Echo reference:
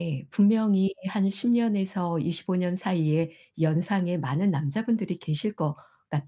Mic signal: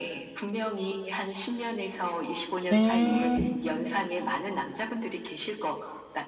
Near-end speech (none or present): present